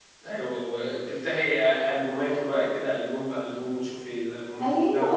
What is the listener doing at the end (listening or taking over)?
taking over